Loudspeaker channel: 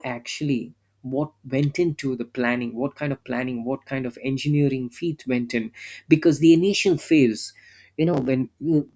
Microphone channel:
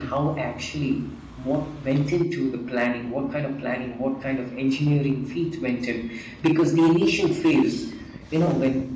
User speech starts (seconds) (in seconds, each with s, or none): none